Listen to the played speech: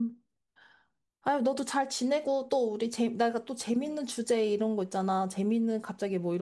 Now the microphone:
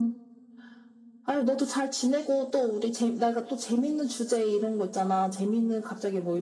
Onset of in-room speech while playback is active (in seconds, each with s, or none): none